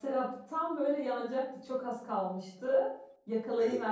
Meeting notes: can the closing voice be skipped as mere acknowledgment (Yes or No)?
Yes